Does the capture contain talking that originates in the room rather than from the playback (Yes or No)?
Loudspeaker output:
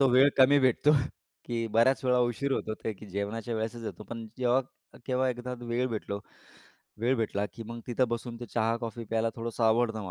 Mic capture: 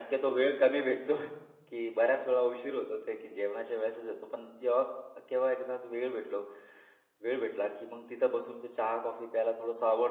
No